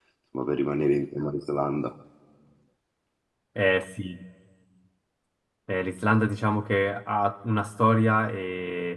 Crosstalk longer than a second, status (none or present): none